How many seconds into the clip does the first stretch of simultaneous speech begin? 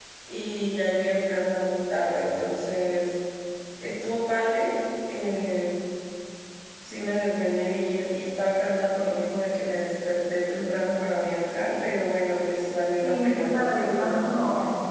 13 s

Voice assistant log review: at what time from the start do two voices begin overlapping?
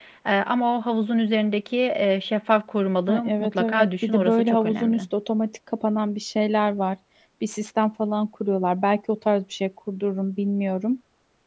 3 s

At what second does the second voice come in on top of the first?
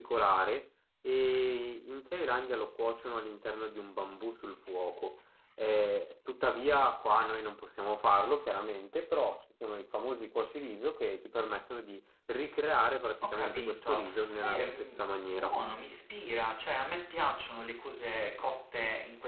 13 s

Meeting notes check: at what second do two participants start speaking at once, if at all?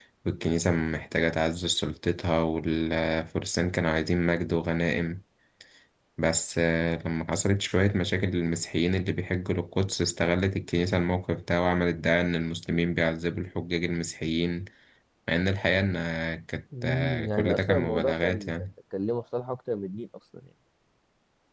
17 s

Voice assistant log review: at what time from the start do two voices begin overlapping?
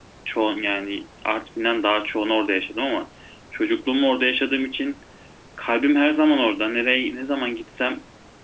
none

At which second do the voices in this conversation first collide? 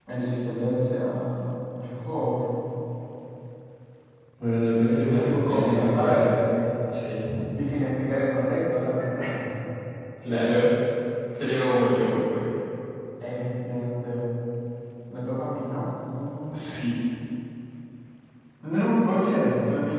5 s

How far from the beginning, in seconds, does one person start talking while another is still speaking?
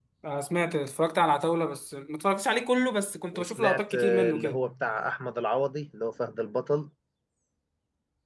3 s

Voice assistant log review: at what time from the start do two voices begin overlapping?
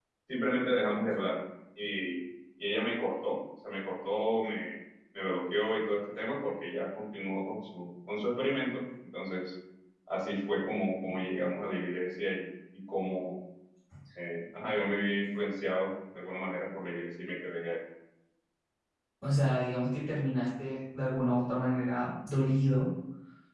none

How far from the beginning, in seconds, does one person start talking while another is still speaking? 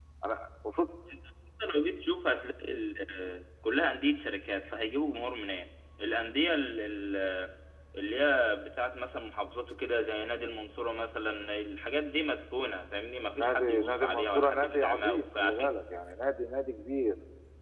13 s

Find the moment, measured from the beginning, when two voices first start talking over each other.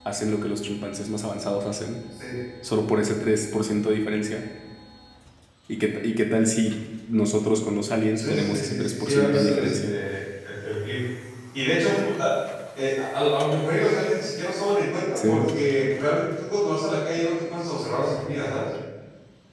8 s

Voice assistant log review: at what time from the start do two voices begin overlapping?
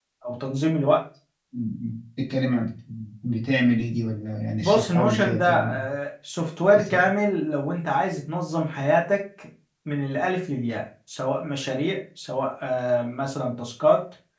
5 s

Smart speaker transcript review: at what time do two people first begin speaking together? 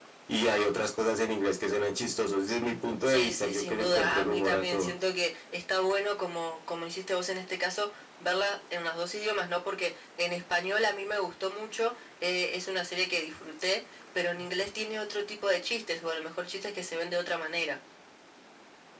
3 s

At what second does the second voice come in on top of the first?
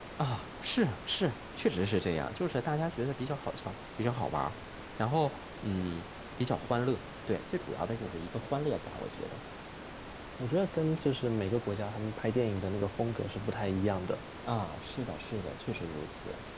none

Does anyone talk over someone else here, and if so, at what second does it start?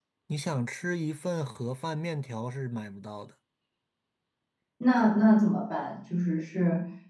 none

